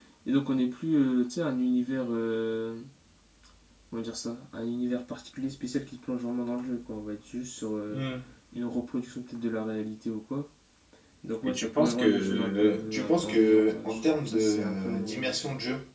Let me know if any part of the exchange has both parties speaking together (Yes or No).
Yes